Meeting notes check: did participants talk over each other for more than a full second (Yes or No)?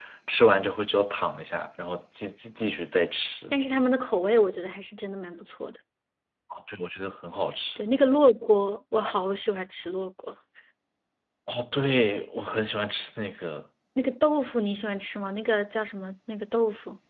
No